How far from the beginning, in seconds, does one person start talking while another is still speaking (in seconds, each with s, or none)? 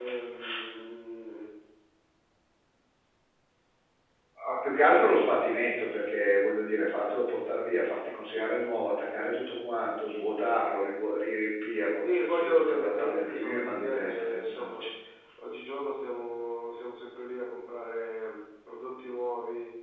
12.0 s